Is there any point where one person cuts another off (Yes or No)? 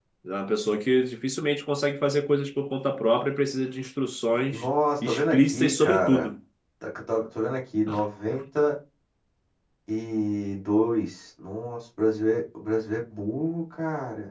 Yes